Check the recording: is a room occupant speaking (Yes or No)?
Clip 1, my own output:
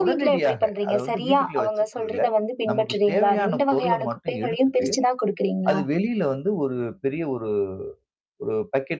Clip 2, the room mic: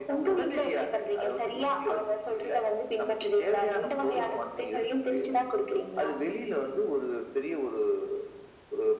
No